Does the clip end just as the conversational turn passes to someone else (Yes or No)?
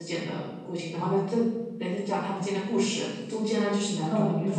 No